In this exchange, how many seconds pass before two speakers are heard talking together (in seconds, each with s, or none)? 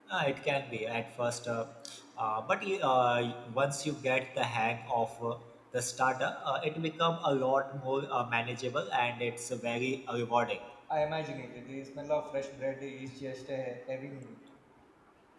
none